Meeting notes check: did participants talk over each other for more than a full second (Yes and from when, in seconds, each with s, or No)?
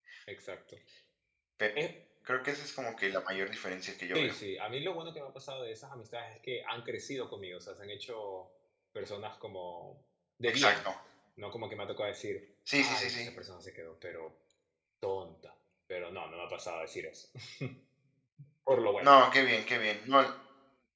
No